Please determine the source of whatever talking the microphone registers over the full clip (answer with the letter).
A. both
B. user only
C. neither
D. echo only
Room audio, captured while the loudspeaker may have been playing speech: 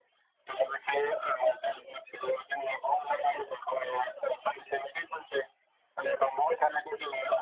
D